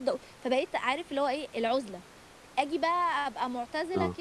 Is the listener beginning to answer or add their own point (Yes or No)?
No